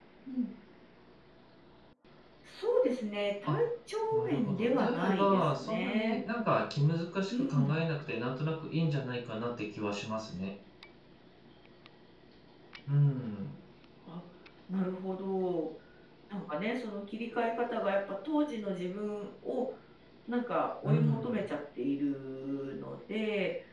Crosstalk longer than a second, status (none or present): present